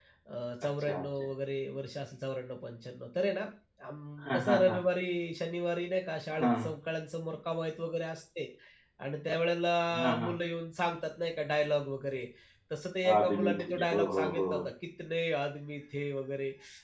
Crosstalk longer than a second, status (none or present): present